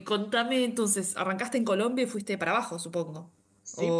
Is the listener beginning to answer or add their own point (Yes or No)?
Yes